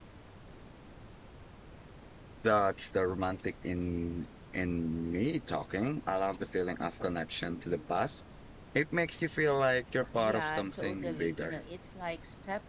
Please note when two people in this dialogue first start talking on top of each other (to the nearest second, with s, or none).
10 s